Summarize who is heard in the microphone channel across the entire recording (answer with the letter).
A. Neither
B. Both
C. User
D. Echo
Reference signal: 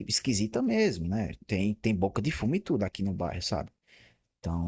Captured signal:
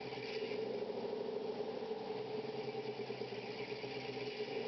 A